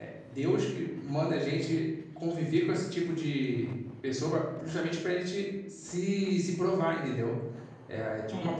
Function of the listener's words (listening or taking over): listening